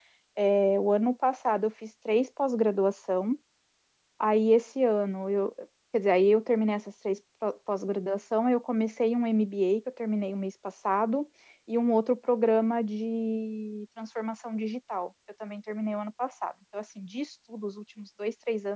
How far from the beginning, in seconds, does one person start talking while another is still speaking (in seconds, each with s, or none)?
none